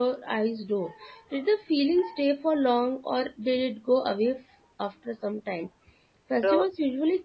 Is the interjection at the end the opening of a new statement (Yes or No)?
No